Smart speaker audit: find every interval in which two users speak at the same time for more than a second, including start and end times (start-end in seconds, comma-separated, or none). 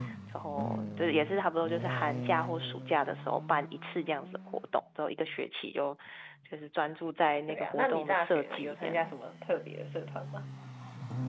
7.5-9.1